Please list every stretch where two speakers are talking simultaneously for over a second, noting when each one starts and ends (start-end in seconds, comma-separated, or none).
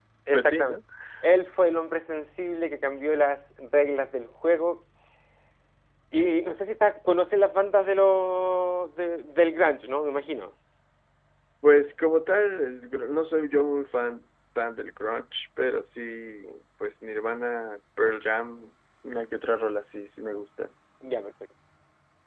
none